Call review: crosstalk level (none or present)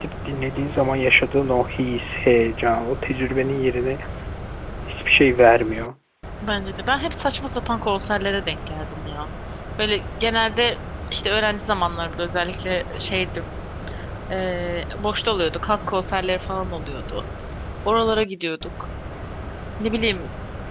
none